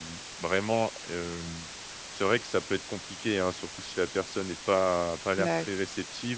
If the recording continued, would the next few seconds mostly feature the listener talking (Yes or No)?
No